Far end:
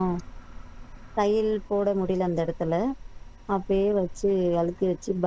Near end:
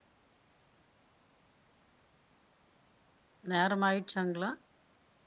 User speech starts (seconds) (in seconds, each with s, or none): 3.5 s